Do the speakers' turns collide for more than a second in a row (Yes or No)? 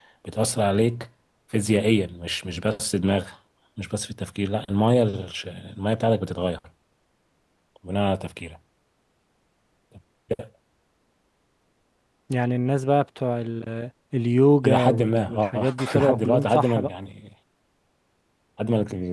Yes